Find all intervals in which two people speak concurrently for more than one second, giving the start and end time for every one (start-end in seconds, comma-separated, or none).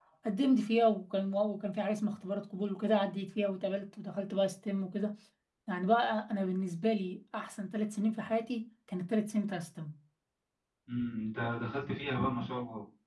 none